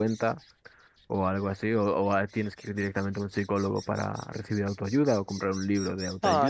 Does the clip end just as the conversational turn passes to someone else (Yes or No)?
Yes